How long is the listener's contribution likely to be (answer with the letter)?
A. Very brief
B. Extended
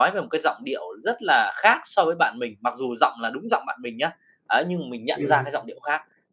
A